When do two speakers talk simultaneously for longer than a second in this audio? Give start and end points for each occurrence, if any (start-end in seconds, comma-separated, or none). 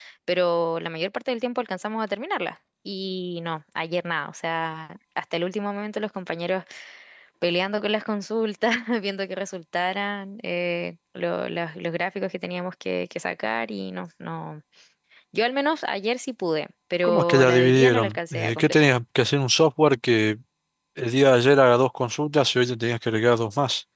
17.0-18.9